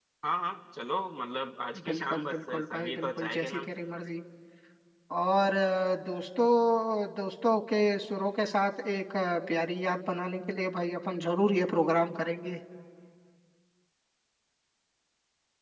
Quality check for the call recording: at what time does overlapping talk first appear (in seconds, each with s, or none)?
1.8 s